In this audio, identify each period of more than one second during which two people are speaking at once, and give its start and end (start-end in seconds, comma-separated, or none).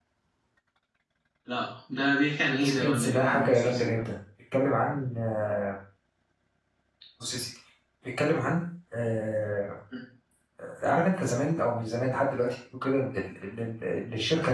2.7-4.0